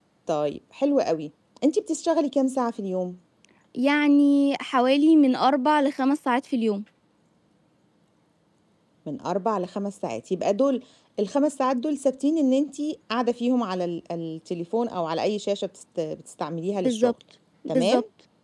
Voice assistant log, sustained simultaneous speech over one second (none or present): none